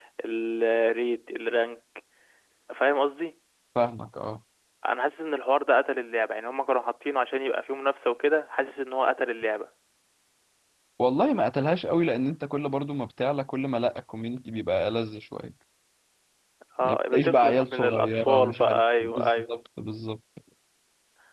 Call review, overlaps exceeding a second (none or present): present